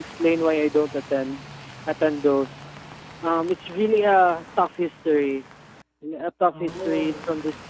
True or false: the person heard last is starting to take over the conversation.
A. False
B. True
A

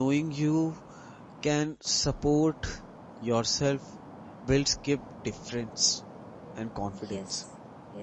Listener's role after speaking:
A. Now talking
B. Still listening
A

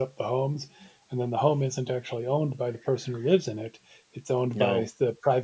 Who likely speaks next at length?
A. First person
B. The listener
A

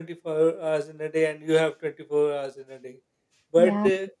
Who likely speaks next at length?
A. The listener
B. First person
B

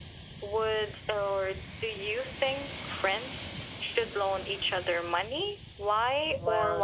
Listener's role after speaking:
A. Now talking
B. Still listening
A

